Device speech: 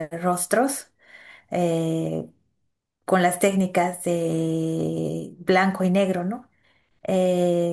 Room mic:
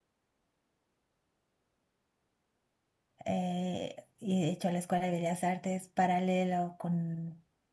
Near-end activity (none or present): present